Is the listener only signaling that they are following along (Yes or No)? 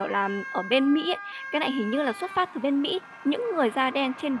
Yes